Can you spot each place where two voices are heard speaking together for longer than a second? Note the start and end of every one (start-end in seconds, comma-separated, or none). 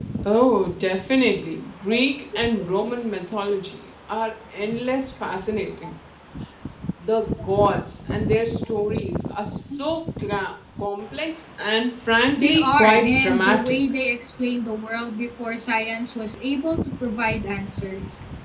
12.4-13.8